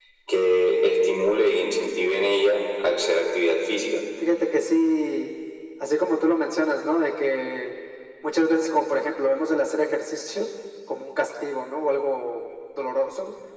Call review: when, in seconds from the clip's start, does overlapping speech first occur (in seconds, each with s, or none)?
none